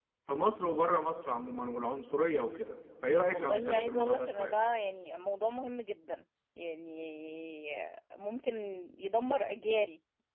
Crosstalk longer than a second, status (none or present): present